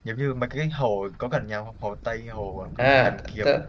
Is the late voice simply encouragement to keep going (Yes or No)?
No